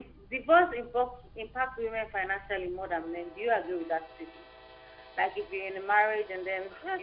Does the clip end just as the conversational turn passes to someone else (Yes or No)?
Yes